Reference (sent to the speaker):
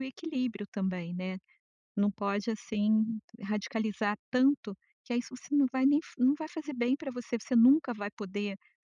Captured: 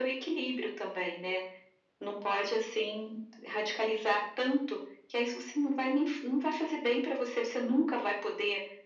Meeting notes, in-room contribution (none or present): none